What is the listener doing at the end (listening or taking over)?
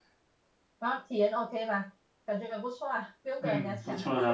taking over